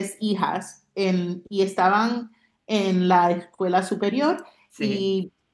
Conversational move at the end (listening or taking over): listening